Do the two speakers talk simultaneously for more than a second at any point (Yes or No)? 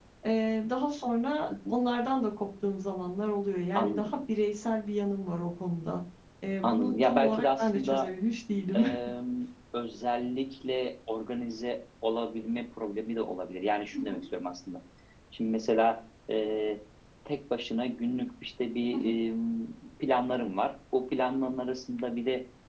Yes